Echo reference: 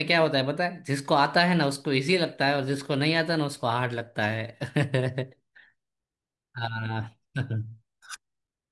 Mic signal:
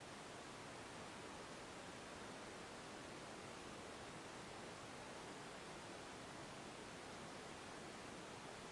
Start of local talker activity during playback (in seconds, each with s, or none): none